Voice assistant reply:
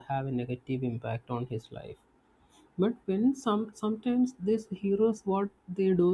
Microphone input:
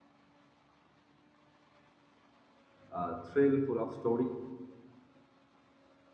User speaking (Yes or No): Yes